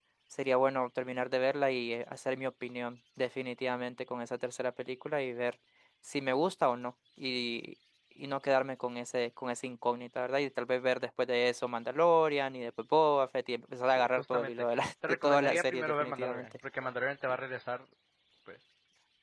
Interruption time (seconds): 14 s

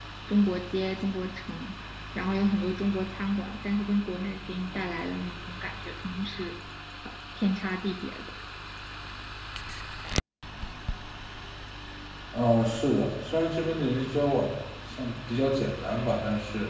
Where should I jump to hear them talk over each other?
none

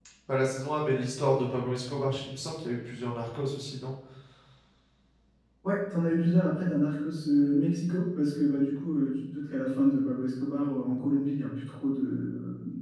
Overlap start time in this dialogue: none

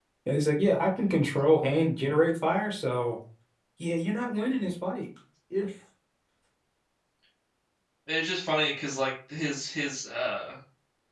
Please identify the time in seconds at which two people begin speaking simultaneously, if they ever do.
none

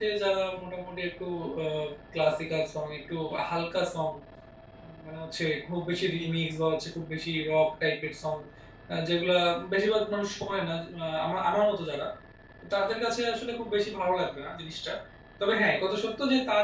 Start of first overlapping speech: none

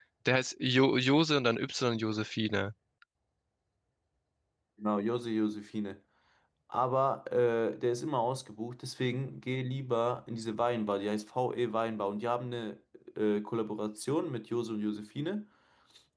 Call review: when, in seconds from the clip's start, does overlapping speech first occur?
none

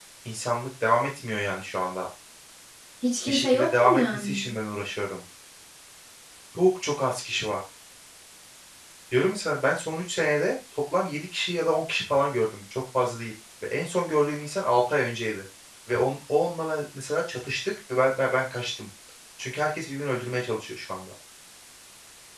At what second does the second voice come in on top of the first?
3 s

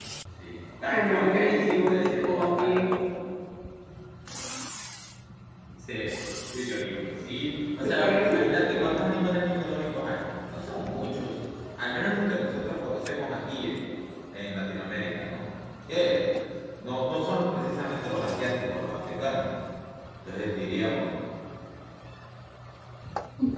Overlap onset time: 1 s

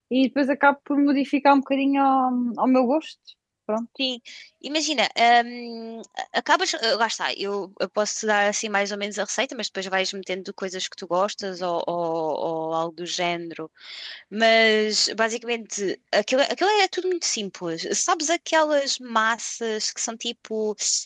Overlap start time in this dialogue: none

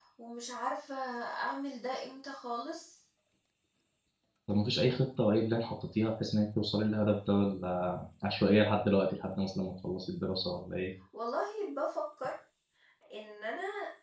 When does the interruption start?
none

